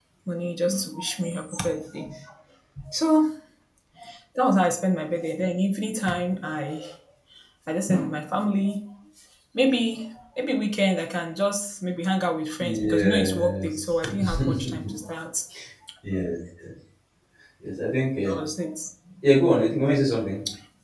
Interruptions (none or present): present